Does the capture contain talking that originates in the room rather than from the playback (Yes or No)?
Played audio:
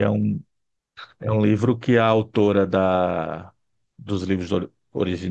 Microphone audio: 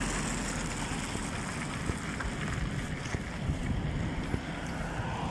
No